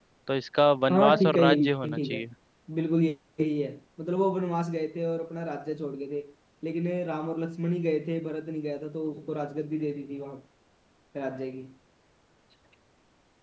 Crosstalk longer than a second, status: present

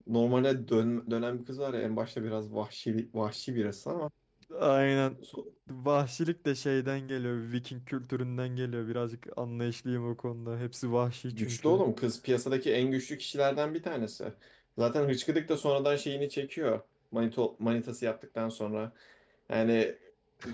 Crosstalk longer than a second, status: none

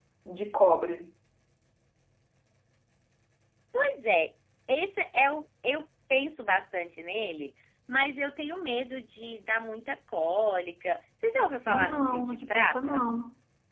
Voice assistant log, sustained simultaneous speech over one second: present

